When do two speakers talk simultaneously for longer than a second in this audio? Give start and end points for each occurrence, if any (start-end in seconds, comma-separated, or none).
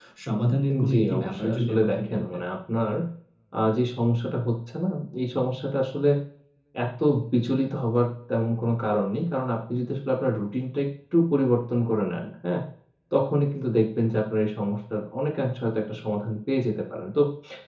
0.9-2.2